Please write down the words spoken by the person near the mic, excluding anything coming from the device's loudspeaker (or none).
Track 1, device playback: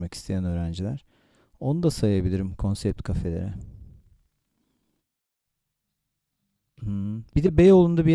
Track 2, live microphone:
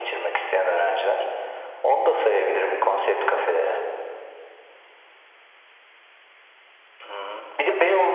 none